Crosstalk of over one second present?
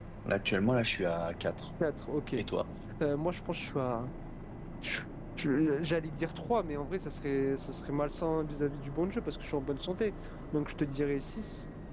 No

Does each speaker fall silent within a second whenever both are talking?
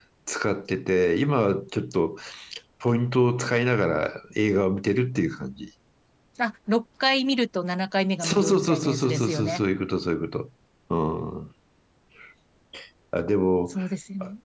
No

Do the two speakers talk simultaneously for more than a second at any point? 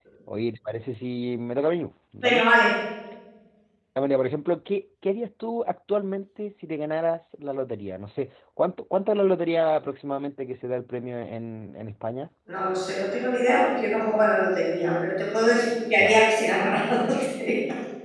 No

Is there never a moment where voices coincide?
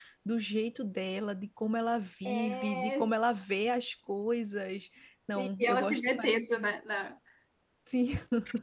No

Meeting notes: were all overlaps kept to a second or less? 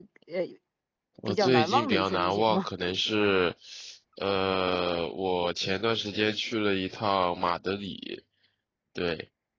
No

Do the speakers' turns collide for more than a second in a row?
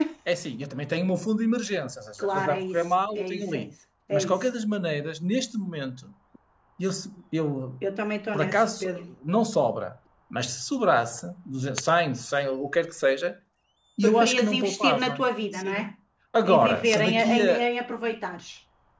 Yes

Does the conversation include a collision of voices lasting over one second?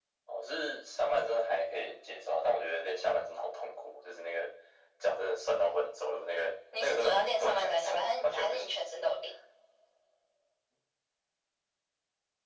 Yes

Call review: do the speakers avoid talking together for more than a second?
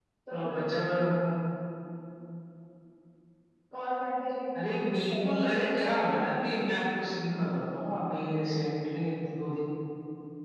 No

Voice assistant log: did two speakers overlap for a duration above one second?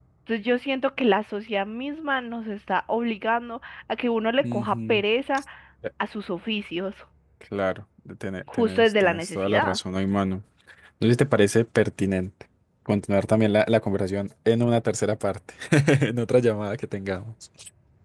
Yes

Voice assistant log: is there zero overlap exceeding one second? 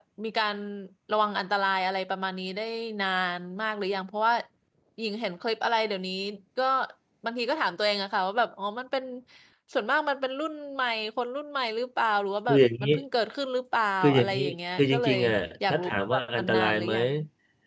No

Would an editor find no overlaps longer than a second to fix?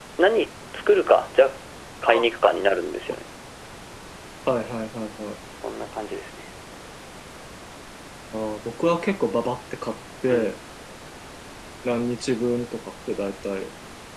Yes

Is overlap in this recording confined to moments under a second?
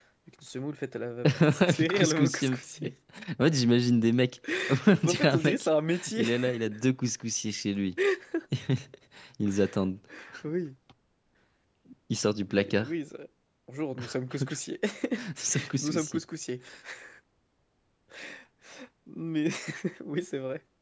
No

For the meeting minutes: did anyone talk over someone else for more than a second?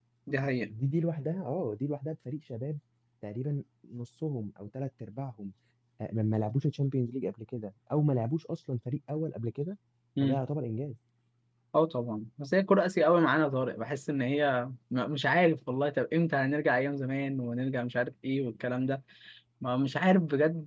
No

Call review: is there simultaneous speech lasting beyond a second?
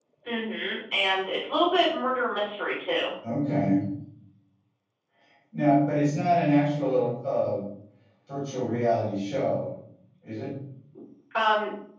No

